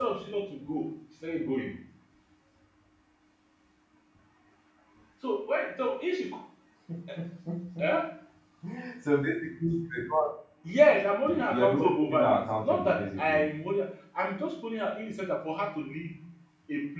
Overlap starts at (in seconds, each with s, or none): 11.3 s